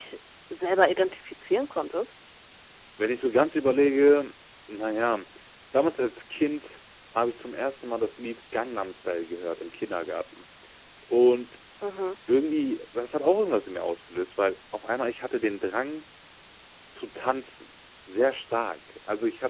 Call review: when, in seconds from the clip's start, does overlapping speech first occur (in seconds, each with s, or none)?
none